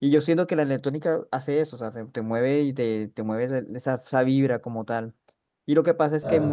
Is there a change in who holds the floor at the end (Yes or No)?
No